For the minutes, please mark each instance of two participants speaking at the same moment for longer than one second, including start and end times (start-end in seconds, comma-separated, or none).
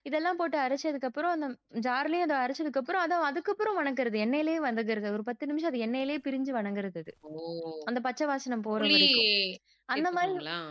none